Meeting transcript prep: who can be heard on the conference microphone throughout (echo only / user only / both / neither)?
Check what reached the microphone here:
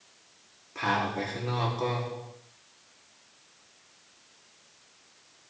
user only